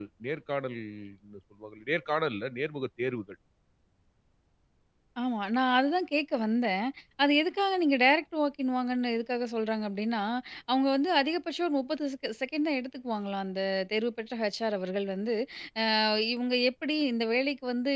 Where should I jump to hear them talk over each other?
none

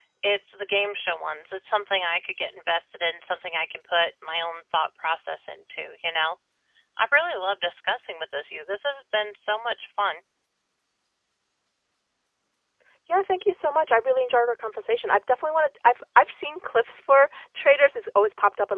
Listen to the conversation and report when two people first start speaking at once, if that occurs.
none

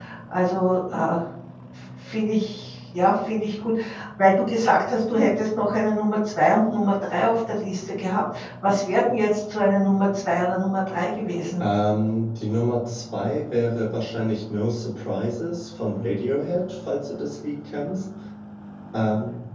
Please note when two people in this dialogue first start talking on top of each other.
none

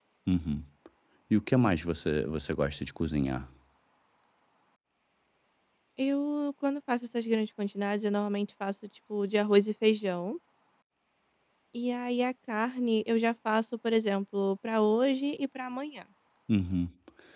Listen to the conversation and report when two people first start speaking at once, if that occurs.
none

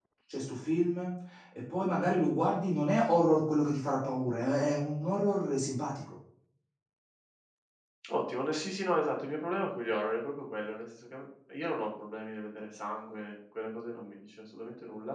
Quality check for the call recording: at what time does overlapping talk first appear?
none

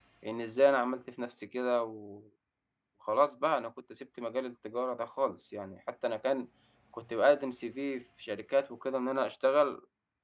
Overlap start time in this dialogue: none

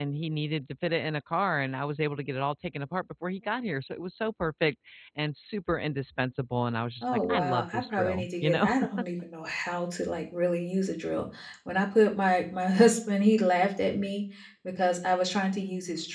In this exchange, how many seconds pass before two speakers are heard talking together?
7.0 s

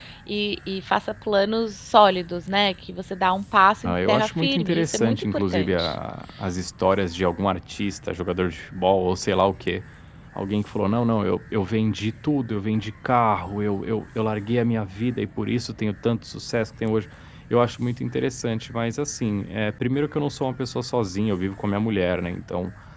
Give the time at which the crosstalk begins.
3.8 s

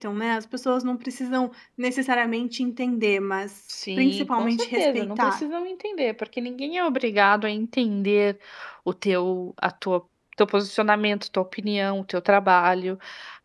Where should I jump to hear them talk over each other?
4.0 s

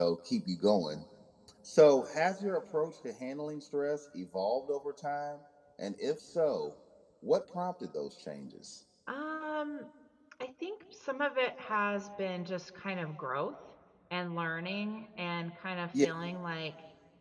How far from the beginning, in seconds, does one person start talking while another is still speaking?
none

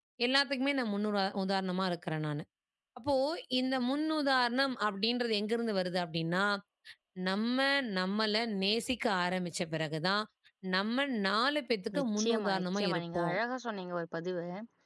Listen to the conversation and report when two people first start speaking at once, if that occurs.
11.9 s

